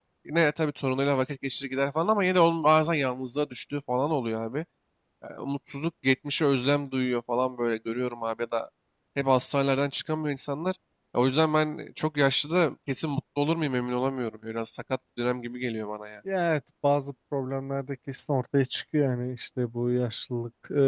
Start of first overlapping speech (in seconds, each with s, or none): none